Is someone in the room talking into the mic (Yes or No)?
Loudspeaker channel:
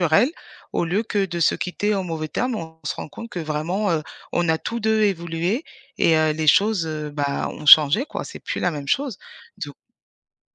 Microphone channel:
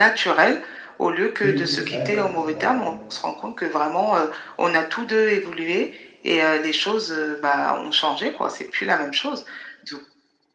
Yes